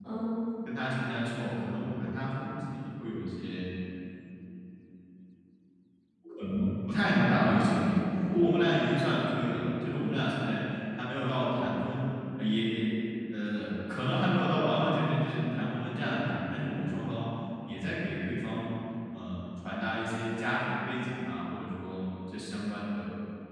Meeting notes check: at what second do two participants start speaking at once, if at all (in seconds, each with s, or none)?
7.0 s